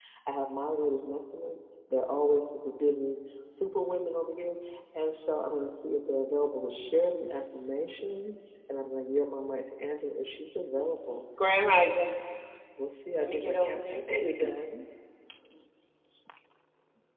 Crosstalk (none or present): present